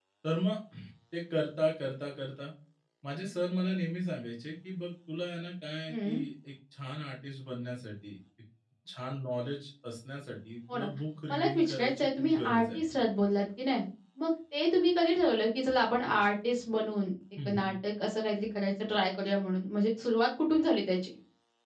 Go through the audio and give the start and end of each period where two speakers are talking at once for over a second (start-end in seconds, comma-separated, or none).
11.3-12.9